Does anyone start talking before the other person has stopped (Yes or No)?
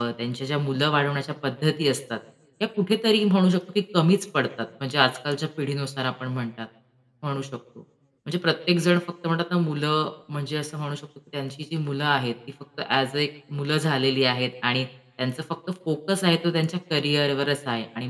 No